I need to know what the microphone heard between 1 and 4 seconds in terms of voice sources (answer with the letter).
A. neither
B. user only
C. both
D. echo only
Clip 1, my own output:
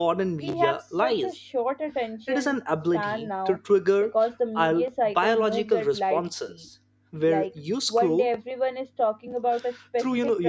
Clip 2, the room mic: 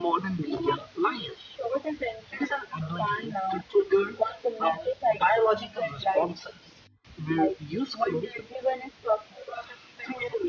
D